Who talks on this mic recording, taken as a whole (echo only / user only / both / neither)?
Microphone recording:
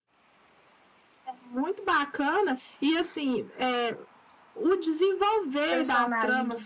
both